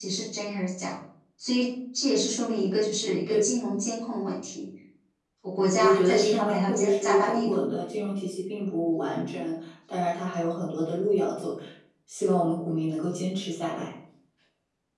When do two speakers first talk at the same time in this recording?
6 s

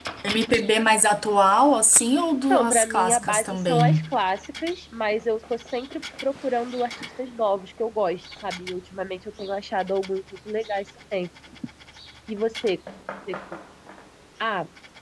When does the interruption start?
3 s

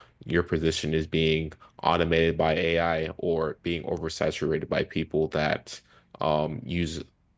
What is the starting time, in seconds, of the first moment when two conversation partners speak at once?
none

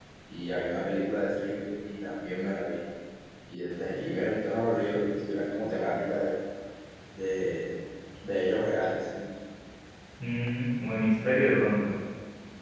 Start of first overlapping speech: none

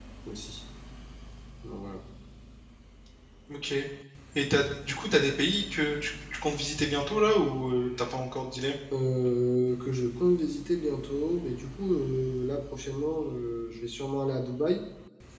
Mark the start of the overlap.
none

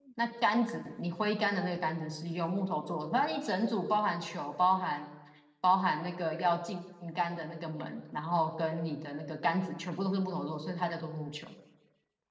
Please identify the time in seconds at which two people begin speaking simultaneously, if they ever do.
none

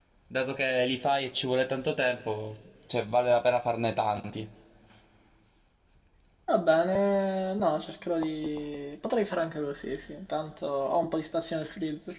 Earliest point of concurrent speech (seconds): none

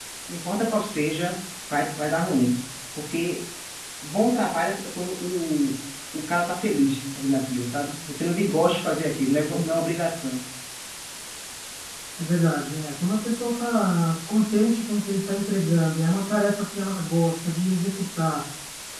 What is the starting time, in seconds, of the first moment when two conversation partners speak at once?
none

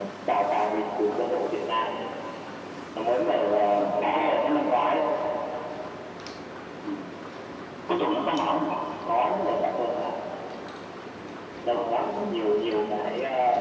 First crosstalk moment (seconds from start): 4 s

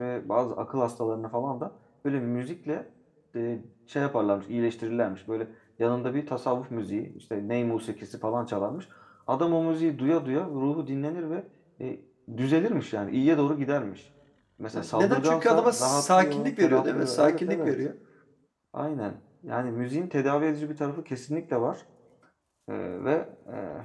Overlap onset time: 15 s

